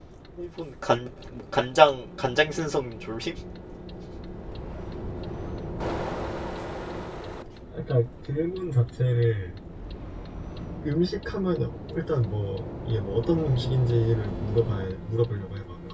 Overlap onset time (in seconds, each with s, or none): none